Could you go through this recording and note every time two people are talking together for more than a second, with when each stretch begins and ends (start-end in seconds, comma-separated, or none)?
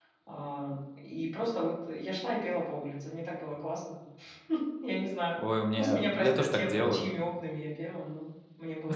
5.8-7.1